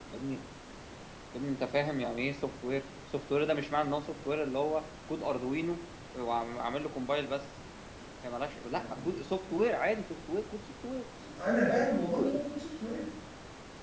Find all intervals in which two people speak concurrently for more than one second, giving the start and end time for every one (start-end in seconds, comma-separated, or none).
none